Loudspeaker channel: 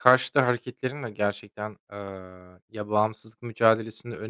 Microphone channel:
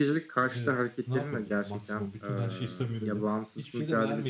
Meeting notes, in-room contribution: present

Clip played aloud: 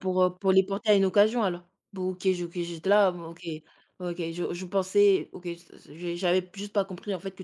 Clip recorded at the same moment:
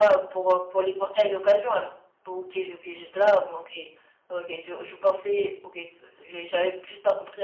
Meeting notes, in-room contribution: none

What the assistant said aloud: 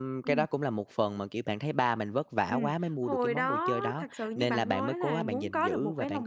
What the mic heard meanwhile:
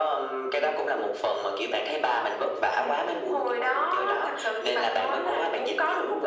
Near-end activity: none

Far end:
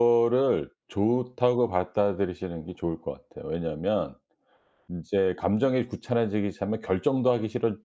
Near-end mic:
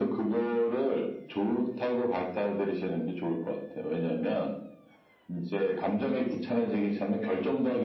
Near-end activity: none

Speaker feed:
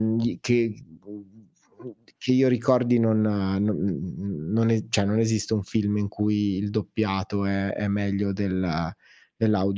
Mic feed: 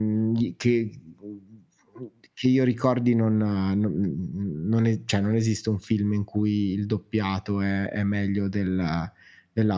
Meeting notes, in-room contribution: none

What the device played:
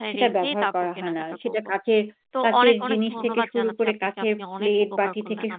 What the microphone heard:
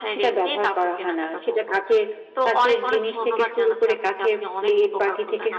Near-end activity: none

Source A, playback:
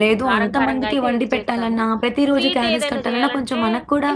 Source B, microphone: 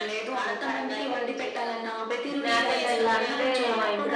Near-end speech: present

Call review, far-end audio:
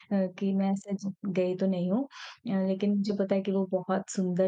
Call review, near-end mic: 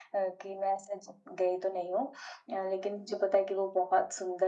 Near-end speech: none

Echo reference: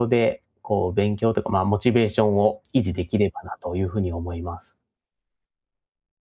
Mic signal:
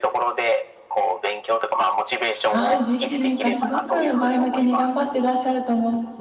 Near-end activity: present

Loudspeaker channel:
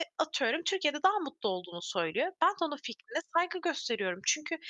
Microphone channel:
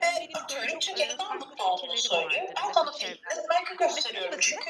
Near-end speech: present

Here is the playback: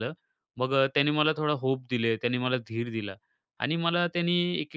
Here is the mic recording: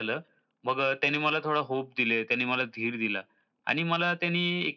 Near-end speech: none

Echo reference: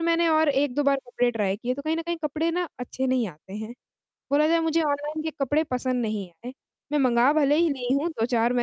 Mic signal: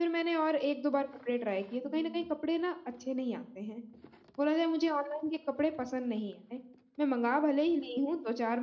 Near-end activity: present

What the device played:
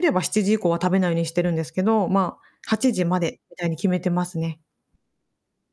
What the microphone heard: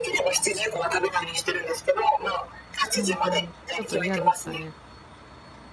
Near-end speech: present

